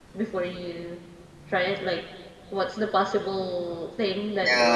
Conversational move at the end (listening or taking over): taking over